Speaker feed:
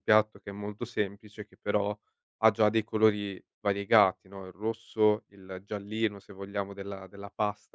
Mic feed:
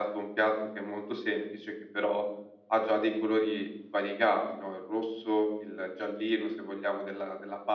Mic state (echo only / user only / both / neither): echo only